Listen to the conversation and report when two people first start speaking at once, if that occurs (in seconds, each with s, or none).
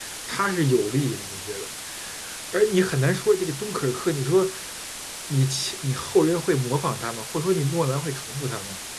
none